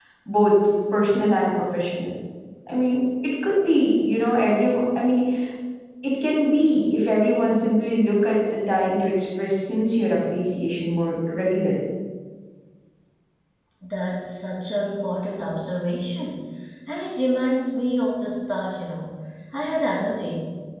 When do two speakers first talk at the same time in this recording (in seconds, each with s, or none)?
none